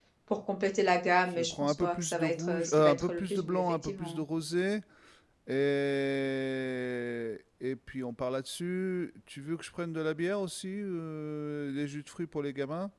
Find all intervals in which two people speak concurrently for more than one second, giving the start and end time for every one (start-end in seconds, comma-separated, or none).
1.3-4.2